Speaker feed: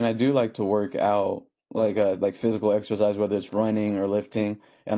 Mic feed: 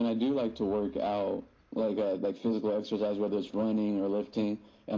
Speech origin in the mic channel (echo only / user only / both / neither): echo only